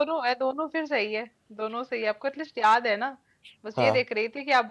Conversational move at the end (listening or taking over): listening